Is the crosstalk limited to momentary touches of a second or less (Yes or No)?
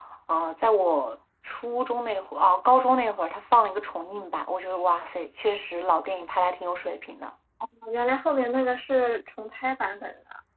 Yes